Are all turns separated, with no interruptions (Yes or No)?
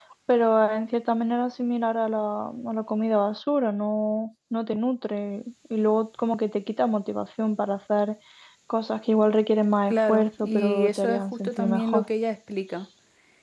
No